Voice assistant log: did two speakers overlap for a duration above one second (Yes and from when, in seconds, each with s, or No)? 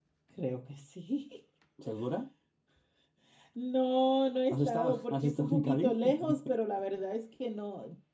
Yes, from 4.5 s